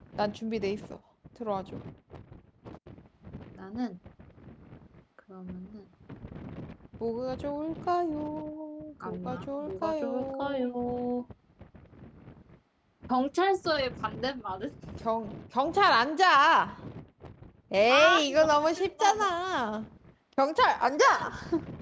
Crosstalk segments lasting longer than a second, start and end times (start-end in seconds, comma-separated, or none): 9.1-10.7, 17.9-19.3